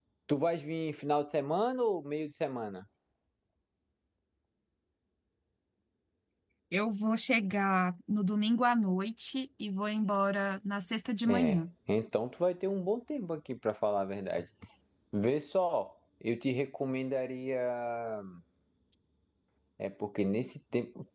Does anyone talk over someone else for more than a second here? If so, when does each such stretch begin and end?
none

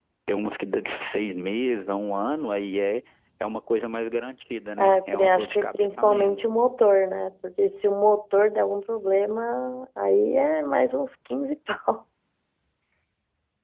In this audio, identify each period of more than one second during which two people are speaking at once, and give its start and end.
4.8-6.4

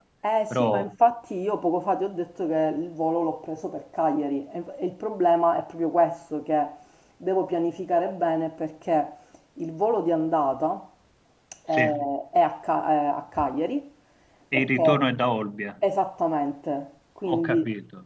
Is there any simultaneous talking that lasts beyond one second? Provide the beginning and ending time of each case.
none

